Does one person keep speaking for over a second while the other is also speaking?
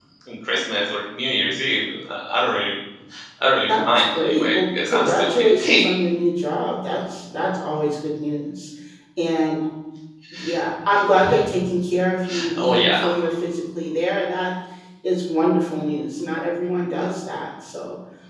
Yes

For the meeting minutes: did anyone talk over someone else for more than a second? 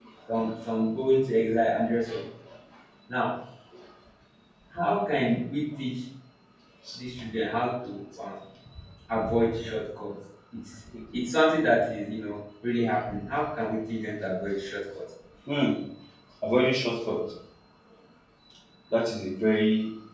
No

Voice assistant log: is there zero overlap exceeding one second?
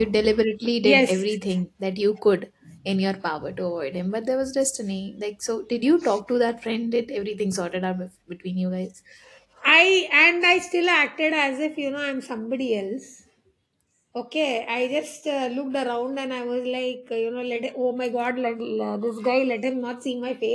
Yes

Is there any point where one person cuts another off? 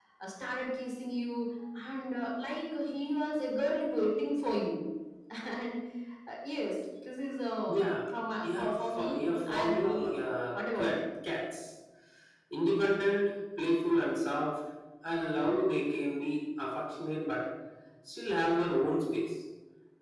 Yes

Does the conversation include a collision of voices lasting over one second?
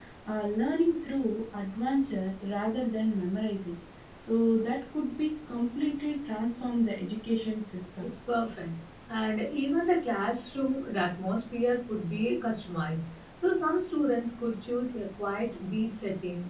No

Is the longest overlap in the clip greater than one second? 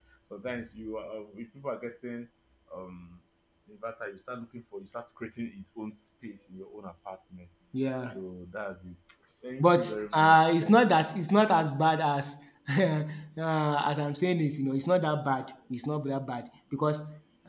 Yes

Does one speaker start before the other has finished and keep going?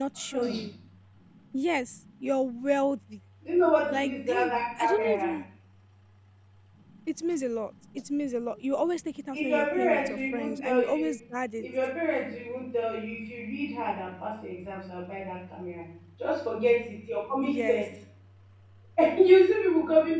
Yes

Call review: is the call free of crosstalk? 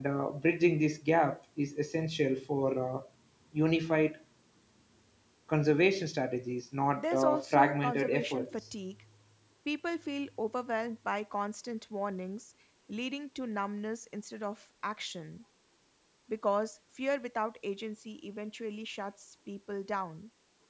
No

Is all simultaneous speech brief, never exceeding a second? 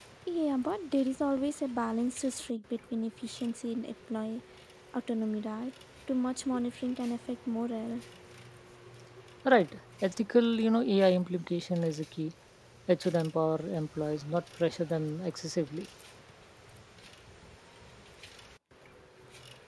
Yes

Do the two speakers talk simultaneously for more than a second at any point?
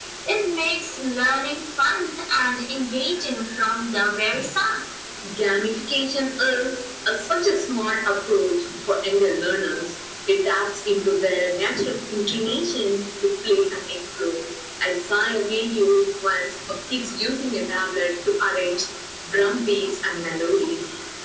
No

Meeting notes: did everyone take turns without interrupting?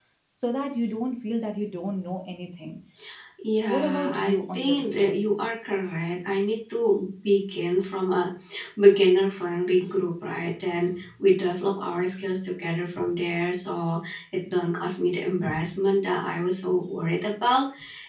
No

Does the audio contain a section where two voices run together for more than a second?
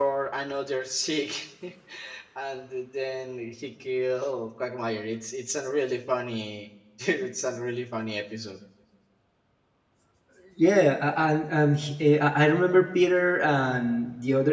No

